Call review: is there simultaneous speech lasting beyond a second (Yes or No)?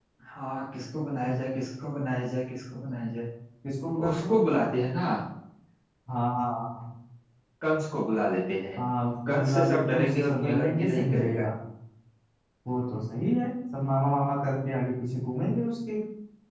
Yes